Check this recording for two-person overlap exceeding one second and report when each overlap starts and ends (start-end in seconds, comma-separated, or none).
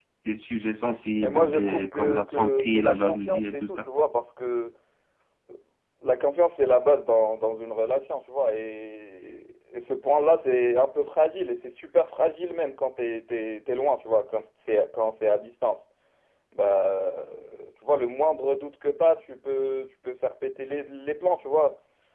1.2-3.9